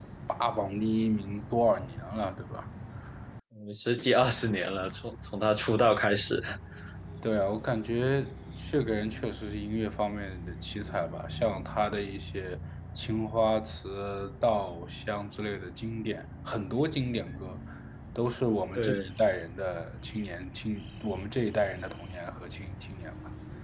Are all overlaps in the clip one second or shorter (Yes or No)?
Yes